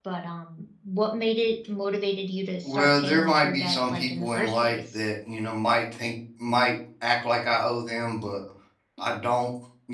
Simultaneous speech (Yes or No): Yes